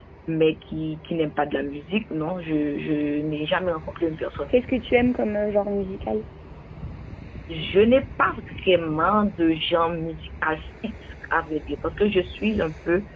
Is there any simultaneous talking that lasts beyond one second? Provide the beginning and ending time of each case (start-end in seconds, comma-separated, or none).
none